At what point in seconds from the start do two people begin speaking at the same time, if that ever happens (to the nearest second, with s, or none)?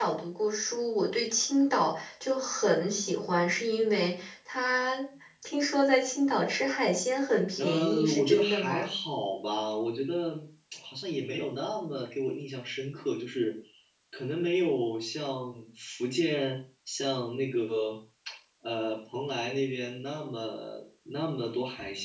8 s